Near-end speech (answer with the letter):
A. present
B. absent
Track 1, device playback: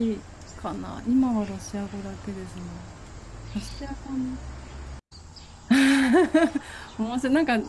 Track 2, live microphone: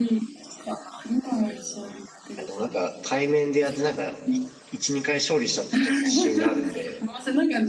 A